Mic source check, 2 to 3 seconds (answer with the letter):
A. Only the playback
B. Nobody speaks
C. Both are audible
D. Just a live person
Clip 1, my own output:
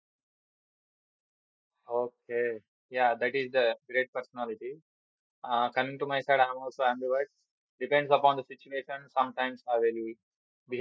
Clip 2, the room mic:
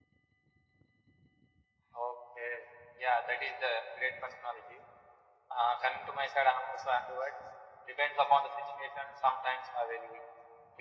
A